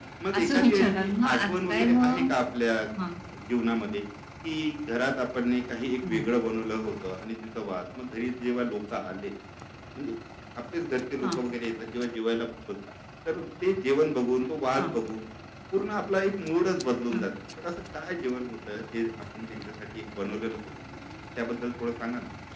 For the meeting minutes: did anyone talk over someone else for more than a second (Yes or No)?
Yes